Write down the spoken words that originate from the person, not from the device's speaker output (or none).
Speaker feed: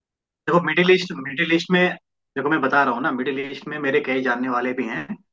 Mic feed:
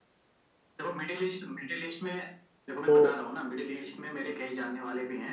तो